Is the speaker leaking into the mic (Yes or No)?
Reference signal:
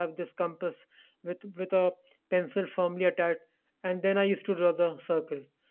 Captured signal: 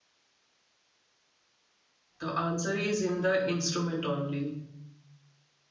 No